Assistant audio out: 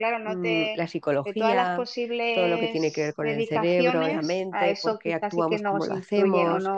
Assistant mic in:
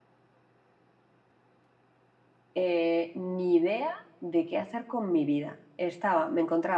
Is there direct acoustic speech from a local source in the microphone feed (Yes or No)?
Yes